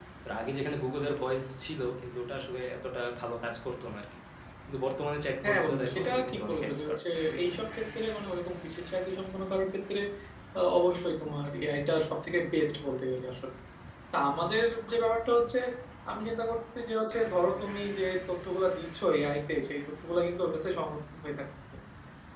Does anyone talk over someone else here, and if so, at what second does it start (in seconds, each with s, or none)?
5.4 s